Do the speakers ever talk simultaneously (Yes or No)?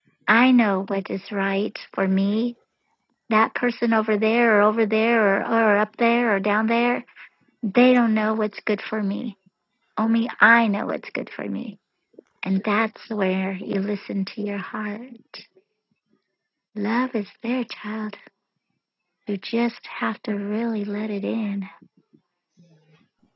No